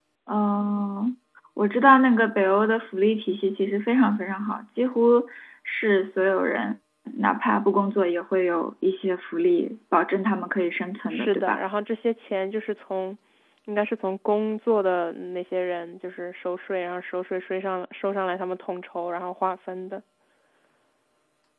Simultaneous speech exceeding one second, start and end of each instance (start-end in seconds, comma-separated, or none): none